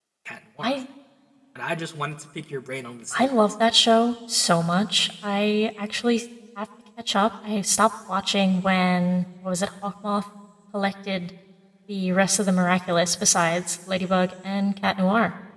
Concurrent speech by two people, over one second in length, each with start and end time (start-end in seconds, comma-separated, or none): none